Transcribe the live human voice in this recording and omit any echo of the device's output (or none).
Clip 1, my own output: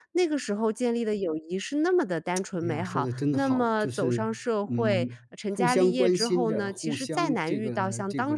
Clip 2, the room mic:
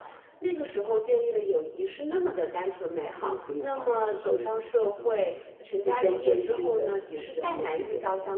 none